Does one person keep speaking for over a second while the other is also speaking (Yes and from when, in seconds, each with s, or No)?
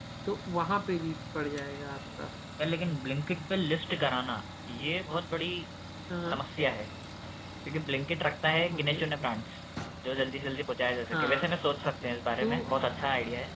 No